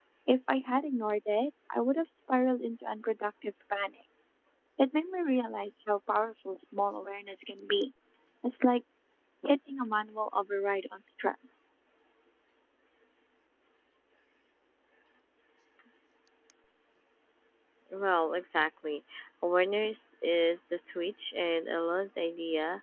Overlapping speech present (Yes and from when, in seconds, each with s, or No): No